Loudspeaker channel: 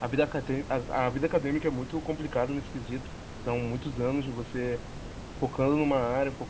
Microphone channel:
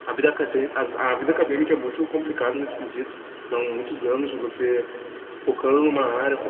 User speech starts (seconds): none

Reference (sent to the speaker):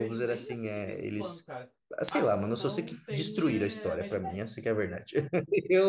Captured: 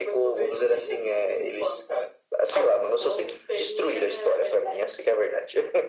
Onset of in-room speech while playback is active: none

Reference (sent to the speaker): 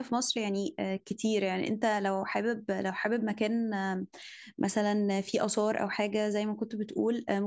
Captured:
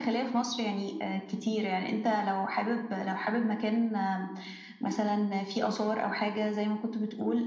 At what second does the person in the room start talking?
none

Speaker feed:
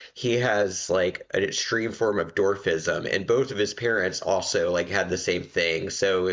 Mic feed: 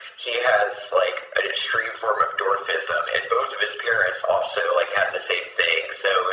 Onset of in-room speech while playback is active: none

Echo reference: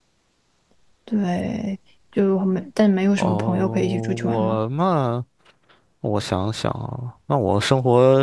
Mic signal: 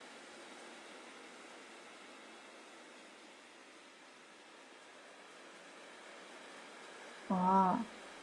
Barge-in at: 7.3 s

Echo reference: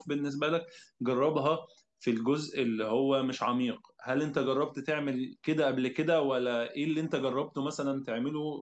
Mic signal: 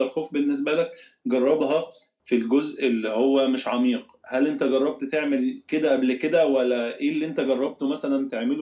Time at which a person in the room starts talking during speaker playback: none

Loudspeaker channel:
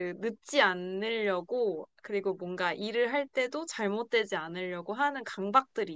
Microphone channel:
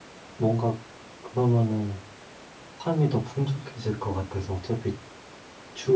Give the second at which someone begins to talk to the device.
0.3 s

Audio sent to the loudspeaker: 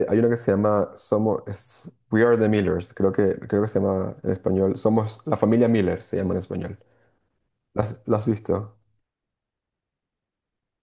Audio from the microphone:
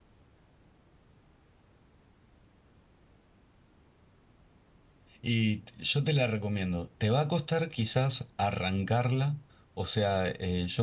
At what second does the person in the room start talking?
5.2 s

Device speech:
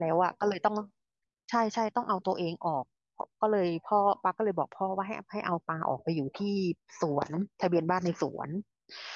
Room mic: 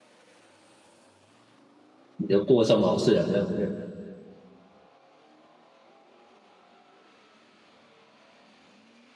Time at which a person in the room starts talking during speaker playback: 2.2 s

